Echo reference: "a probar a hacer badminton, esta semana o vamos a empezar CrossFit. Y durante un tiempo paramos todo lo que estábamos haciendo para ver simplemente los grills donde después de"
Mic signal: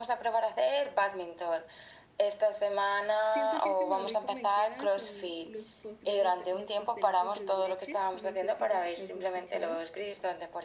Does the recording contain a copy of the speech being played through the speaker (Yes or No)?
Yes